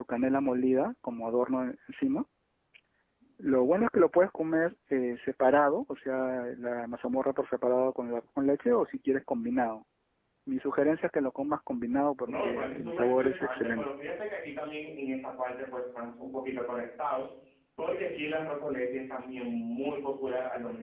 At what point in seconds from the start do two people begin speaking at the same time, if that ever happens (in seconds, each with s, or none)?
12.2 s